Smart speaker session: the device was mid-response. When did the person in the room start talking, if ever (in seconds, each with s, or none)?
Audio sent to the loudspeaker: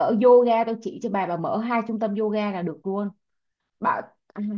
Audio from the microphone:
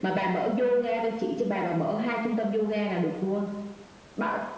none